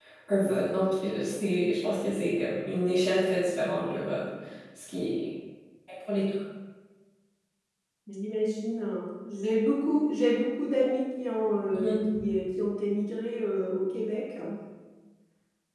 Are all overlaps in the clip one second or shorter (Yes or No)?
Yes